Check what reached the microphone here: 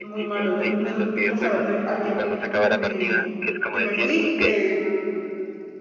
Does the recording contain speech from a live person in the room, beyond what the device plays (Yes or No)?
Yes